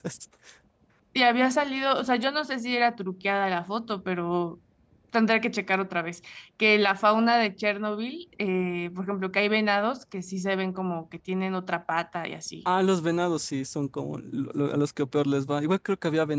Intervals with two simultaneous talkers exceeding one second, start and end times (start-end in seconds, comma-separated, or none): none